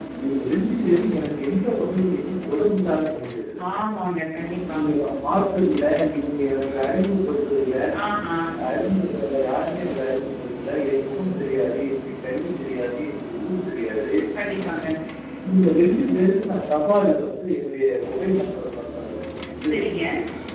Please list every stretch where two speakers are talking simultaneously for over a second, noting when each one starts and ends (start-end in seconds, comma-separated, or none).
none